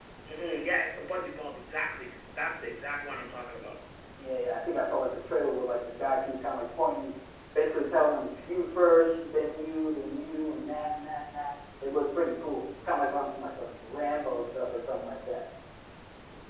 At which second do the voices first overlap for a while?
none

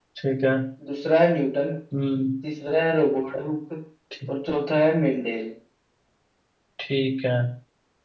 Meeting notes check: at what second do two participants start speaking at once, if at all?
none

